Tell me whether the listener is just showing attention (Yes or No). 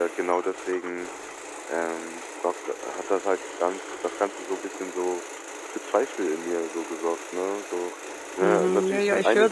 No